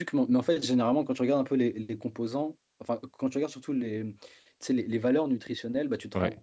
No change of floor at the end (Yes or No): Yes